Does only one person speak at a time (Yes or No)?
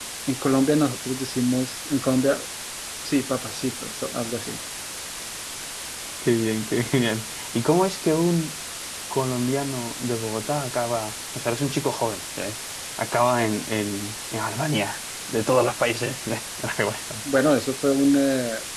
Yes